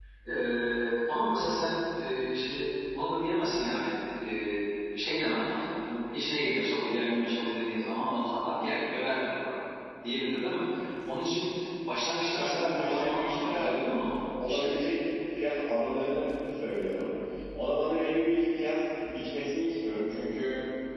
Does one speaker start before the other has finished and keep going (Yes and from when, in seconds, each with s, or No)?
Yes, from 12.3 s